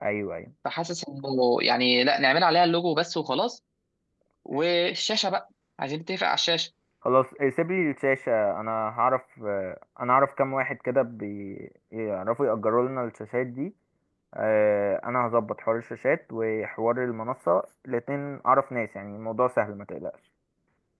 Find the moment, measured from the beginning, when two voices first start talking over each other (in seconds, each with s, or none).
none